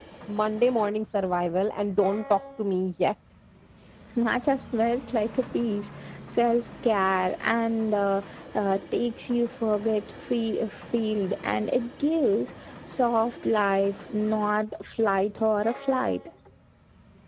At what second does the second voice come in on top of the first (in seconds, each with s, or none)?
none